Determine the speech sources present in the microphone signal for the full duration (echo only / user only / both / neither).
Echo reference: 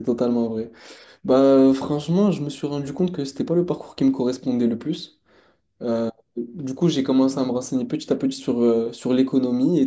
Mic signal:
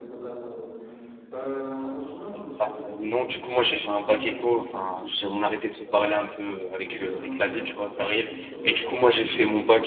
both